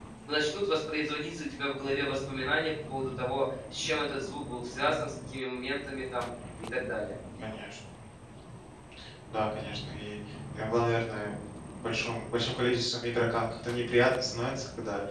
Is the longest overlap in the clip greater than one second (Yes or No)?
No